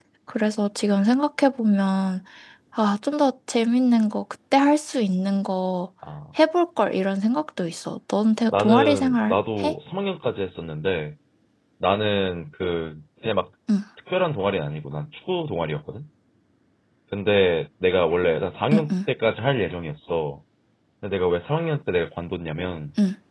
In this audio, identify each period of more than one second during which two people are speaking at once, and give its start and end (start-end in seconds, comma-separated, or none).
8.5-9.8